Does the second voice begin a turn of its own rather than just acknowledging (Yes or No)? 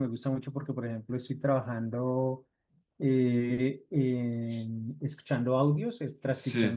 No